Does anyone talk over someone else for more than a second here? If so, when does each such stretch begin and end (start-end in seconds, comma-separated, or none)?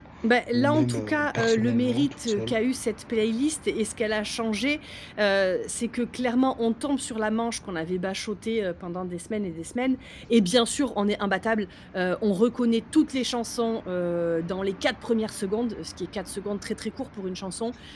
0.5-2.6